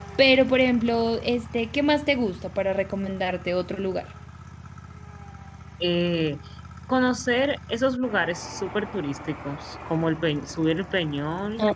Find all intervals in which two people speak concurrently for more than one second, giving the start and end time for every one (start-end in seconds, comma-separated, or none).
none